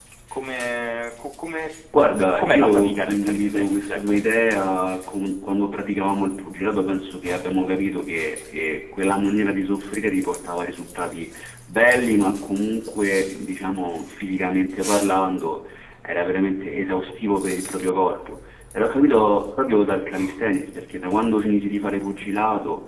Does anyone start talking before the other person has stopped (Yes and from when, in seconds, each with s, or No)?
Yes, from 2.4 s